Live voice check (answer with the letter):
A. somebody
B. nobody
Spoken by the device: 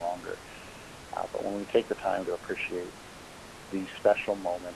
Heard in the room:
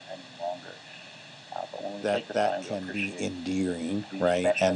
A